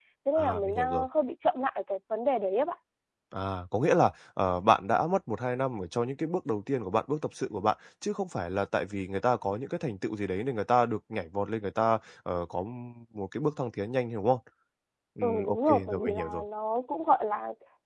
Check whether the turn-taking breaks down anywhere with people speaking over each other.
Yes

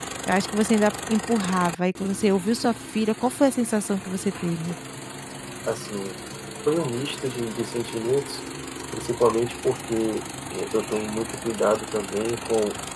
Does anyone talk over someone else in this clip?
No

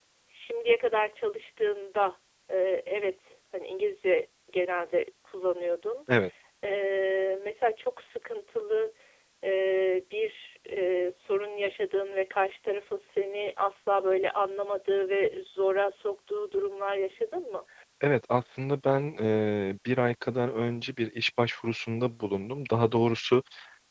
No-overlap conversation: Yes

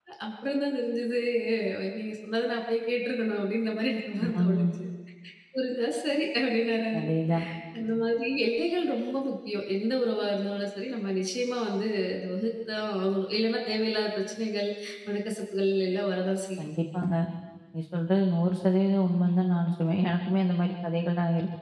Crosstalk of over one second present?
No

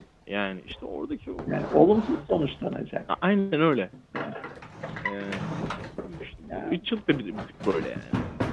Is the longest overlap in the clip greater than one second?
No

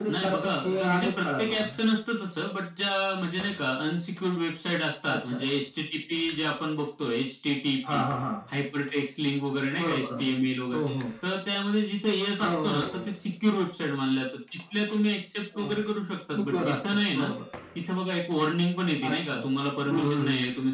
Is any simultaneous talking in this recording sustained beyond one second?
Yes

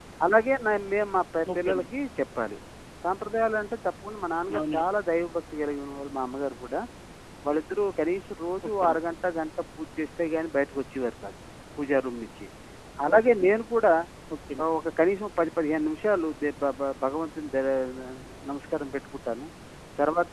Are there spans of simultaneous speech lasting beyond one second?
No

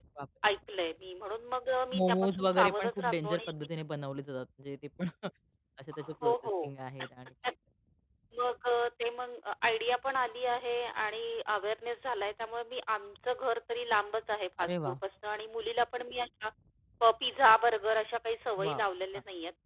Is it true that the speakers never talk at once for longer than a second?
No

